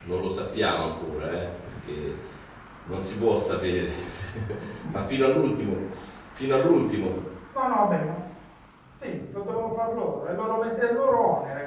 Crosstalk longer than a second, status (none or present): none